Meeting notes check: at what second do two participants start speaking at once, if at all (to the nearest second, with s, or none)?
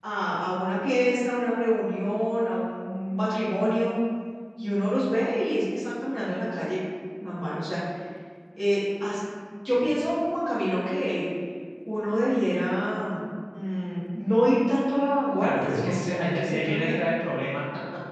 15 s